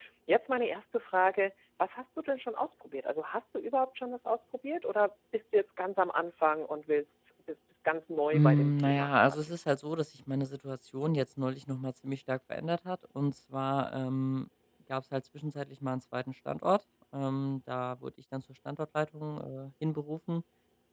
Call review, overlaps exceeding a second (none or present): present